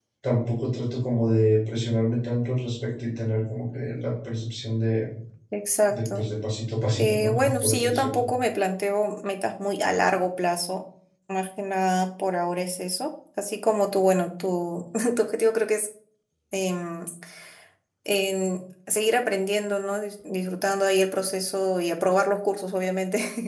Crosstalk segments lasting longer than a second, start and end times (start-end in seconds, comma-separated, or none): 7.0-8.2